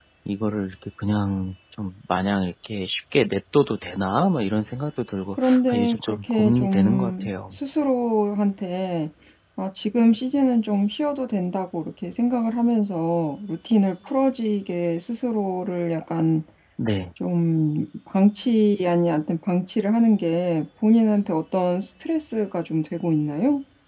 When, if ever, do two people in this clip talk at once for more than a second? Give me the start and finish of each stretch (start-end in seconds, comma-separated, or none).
5.3-7.5